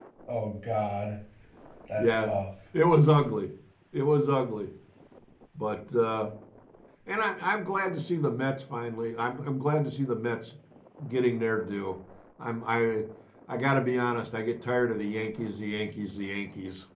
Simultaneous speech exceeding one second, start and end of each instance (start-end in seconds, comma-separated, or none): none